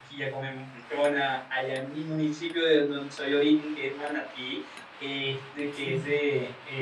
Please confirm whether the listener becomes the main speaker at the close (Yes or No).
No